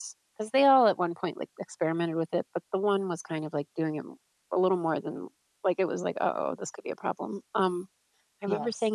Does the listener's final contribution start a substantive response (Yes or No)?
No